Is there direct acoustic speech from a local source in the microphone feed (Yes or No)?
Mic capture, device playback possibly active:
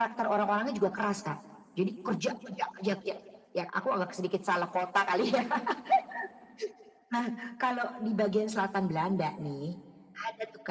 No